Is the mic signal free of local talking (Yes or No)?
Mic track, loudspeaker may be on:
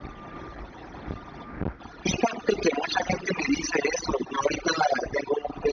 Yes